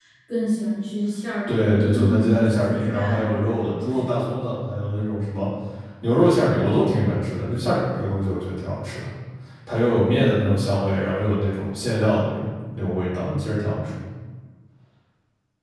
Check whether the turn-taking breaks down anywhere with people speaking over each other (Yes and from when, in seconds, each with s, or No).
Yes, from 1.5 s